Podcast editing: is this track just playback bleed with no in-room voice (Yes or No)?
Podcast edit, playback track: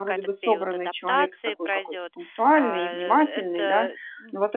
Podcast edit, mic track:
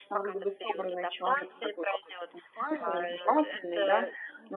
Yes